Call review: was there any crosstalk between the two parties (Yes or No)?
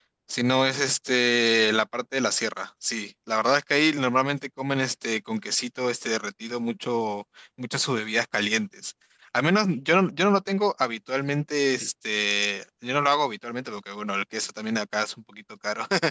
No